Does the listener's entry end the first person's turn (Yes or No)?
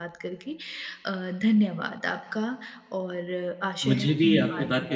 Yes